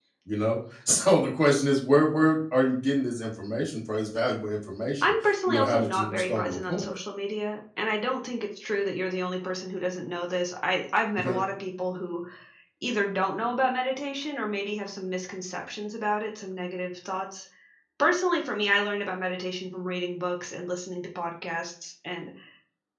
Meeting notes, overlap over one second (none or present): present